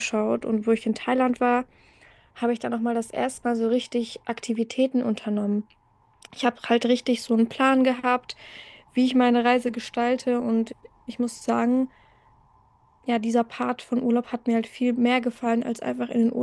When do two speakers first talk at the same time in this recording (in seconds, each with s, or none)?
none